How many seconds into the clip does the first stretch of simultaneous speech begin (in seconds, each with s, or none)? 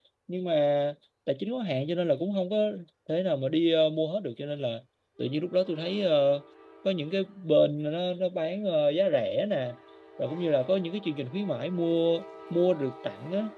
none